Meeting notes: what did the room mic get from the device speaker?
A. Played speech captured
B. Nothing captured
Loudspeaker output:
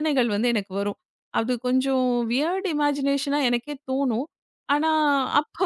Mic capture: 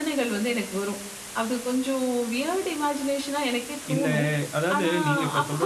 A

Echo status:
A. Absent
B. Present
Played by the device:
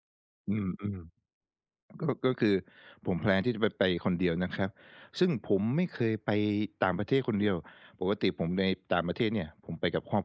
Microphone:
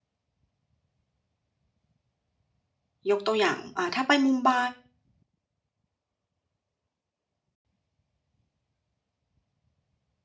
A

